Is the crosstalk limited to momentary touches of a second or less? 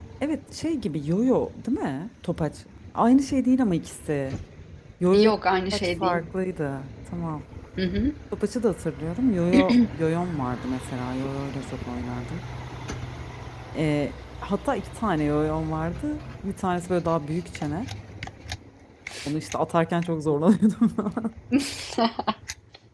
Yes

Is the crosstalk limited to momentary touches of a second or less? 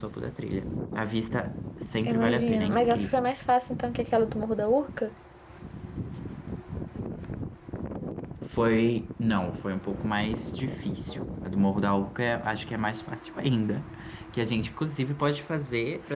No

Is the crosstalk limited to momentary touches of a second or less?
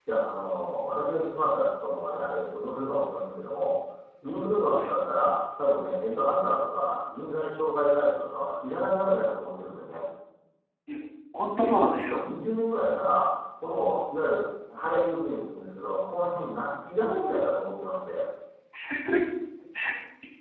Yes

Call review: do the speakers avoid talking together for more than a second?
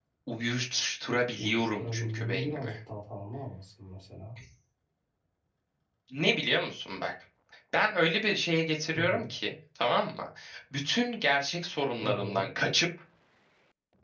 No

